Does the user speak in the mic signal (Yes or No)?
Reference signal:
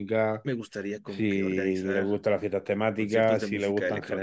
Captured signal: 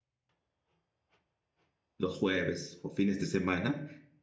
Yes